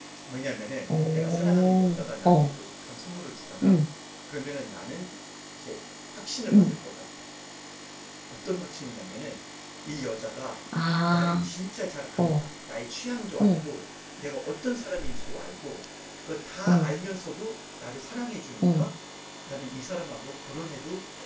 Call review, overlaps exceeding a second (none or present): present